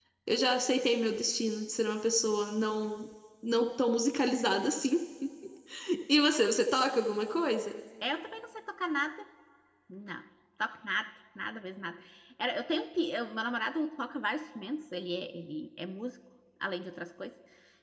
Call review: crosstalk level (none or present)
none